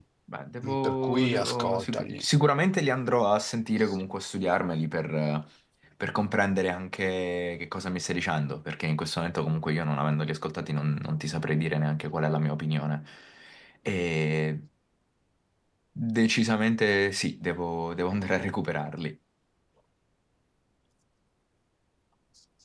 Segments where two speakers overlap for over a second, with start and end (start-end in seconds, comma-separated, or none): 0.6-2.2